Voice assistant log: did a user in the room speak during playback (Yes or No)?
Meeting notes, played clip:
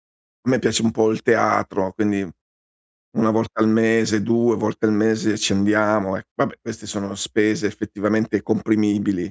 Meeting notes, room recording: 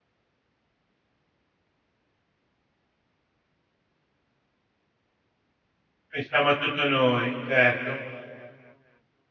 Yes